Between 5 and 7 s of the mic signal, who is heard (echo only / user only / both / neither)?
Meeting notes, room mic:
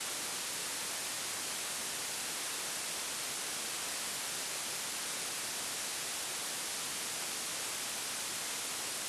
neither